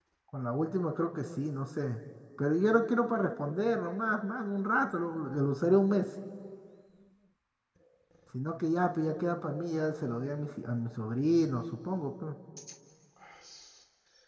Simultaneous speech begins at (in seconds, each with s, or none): none